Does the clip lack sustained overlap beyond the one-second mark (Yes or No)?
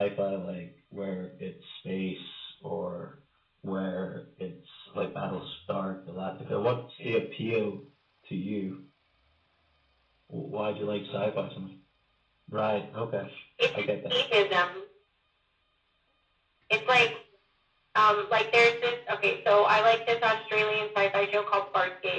Yes